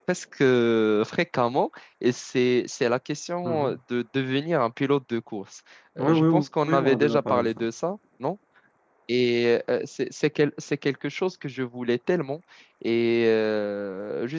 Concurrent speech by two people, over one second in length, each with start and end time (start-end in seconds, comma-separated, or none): 6.0-7.6